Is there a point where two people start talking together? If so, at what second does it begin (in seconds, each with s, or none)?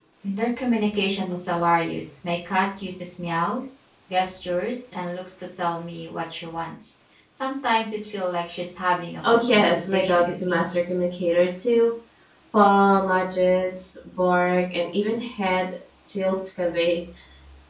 9.2 s